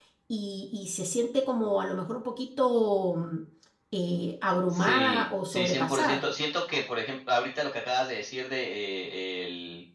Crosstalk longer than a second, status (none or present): present